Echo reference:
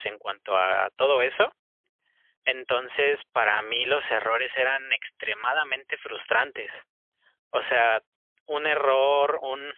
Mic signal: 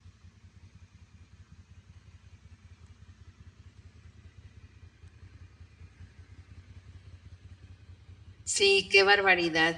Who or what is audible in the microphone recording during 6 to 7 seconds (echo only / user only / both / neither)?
neither